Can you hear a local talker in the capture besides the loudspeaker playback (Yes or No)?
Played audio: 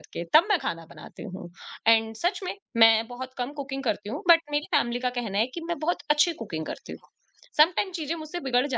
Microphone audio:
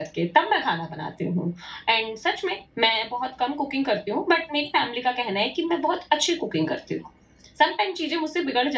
No